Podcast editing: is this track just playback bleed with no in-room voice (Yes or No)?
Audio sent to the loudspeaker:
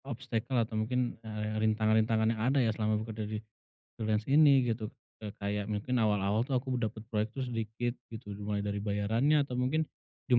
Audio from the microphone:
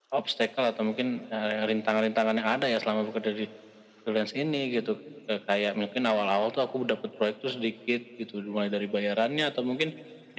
Yes